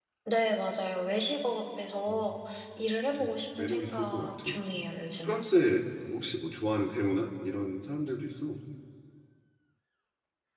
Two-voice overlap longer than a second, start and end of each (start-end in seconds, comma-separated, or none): 3.1-4.5